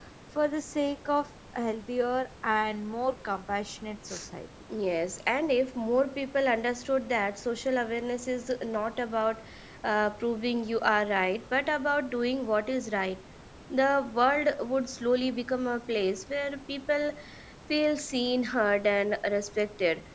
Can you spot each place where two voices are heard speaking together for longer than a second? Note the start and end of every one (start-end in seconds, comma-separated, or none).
none